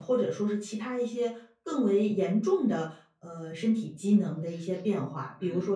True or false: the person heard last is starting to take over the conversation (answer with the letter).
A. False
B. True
A